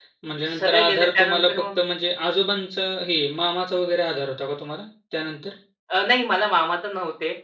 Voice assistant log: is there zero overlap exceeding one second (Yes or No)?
No